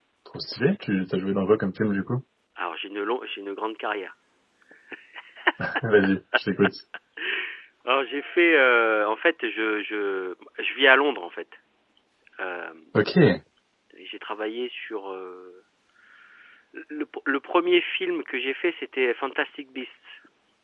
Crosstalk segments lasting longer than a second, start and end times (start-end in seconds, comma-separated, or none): none